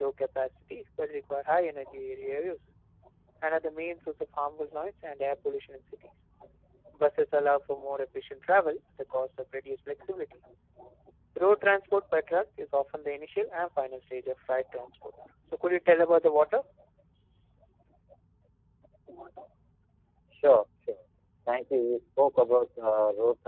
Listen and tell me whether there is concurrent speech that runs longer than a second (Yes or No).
No